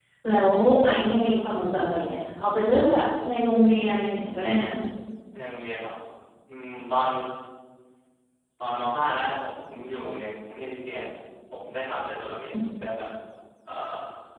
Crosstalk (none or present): none